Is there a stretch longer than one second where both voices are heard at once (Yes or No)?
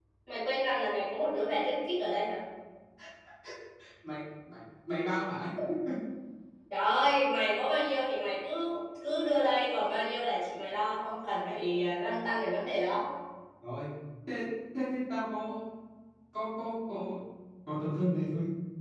No